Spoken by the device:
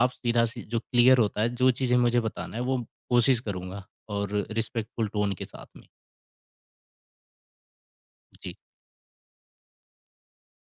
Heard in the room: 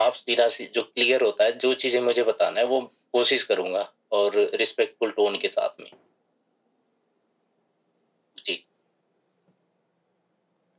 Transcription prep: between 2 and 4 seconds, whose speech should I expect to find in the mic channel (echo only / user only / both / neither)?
echo only